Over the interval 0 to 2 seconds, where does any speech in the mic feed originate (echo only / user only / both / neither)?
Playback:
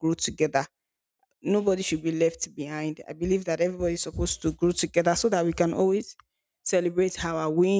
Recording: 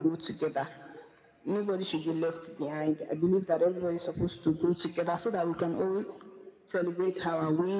echo only